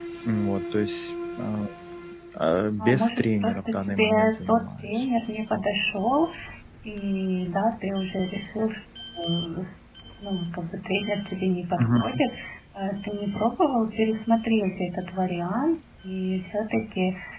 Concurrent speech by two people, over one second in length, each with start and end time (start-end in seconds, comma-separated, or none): 2.8-5.1